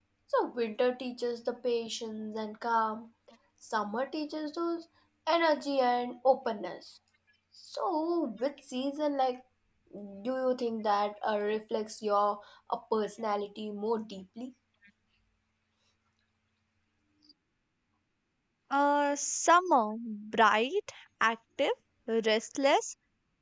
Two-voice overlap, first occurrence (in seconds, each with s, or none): none